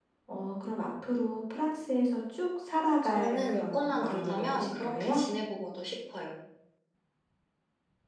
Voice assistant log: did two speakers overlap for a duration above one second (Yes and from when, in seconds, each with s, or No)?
Yes, from 3.0 s